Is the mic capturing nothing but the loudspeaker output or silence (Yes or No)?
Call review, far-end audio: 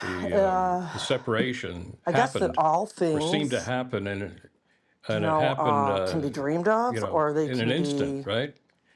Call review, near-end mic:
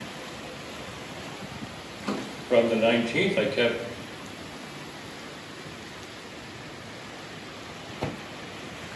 No